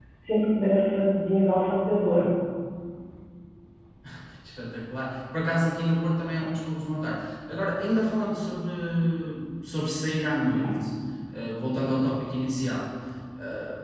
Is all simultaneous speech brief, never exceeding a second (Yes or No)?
Yes